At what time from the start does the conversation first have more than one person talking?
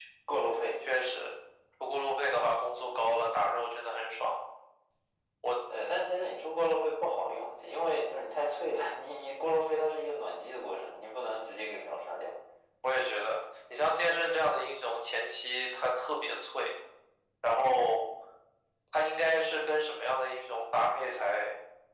none

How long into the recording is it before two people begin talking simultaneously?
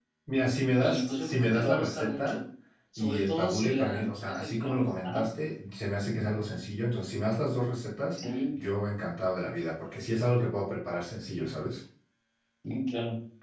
0.8 s

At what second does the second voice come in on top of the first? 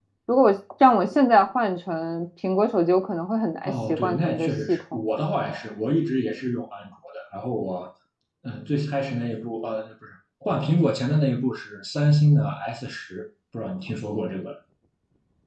3.6 s

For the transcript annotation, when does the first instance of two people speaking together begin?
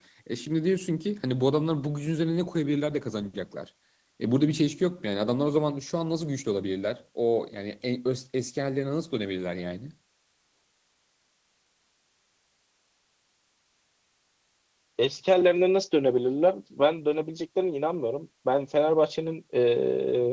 none

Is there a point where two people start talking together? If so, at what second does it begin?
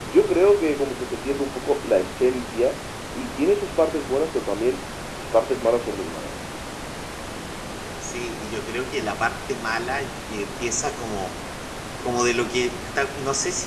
none

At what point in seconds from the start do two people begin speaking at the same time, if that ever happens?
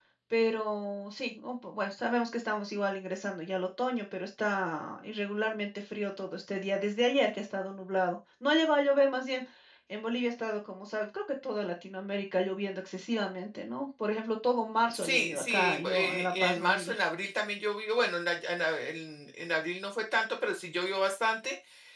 14.9 s

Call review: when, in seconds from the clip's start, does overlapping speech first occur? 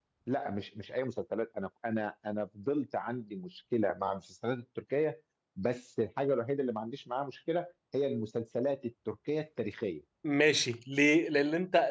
none

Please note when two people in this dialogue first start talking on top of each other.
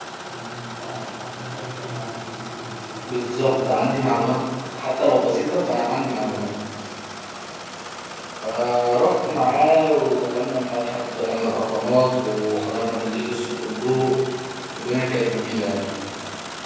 3.0 s

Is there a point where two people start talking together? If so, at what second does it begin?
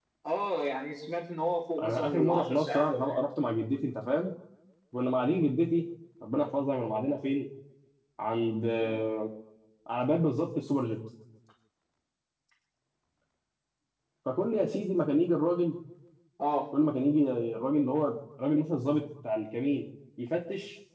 1.8 s

